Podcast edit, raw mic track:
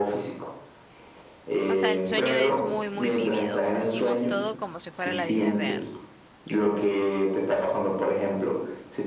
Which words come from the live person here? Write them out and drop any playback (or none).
O sea, el sueño es muy, muy vívido, sentimos todo como si fuera la vida real.